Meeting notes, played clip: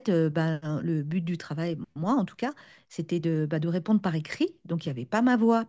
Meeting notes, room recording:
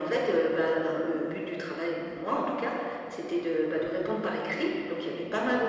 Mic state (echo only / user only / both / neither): echo only